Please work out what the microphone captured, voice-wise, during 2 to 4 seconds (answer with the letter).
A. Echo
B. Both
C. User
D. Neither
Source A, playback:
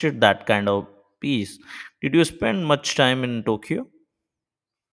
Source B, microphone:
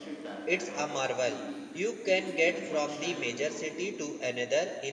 B